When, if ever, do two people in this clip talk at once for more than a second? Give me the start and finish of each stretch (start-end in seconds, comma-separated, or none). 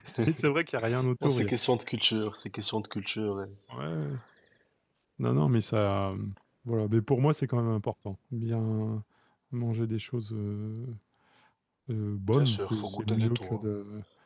12.3-13.7